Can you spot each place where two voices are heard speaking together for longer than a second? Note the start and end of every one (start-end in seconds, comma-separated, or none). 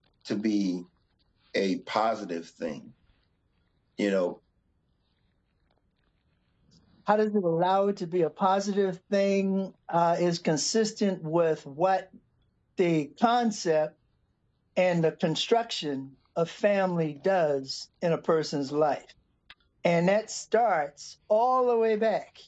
none